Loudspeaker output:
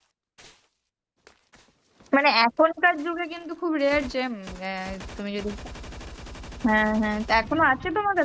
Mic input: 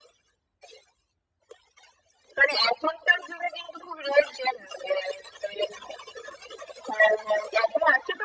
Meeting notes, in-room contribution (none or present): none